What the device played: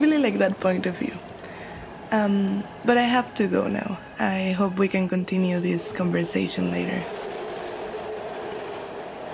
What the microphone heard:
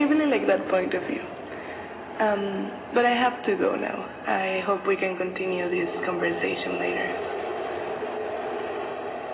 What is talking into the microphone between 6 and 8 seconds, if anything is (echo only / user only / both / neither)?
echo only